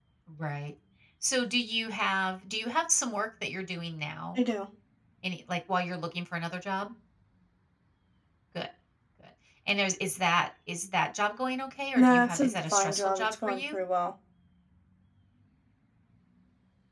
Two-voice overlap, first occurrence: 12.0 s

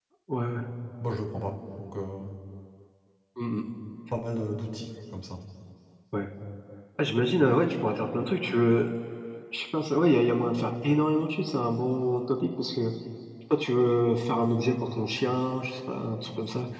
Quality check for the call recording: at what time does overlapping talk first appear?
none

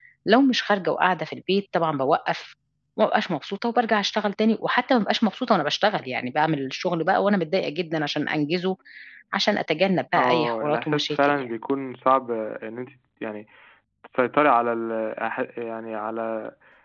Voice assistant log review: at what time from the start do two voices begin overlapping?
10.2 s

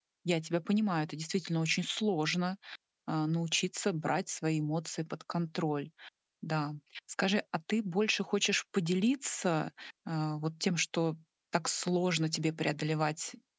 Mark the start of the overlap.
none

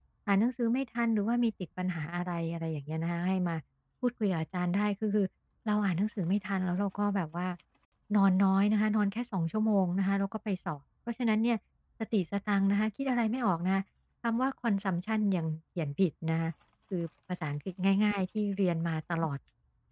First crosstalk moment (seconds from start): none

